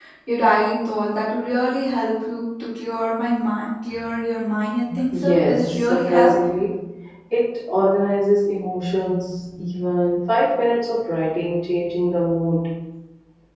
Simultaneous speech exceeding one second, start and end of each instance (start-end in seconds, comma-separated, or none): 5.1-6.3